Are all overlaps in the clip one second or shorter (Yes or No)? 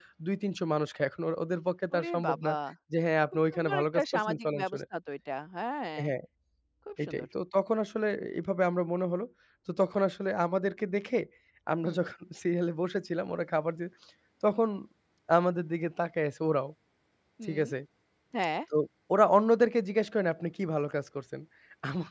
No